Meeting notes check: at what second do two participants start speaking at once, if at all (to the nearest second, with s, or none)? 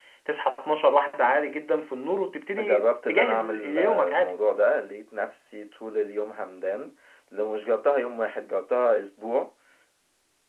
3 s